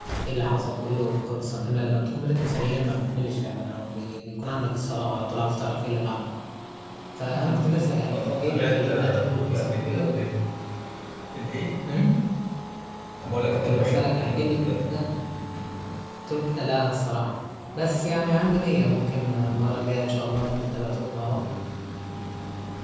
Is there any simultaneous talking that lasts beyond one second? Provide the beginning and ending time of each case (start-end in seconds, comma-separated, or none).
8.1-10.0, 13.5-14.8